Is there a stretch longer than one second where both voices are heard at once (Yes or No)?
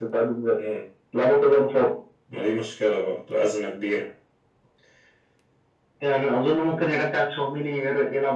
No